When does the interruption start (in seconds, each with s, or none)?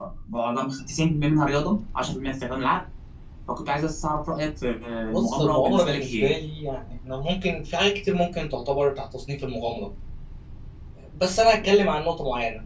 5.1 s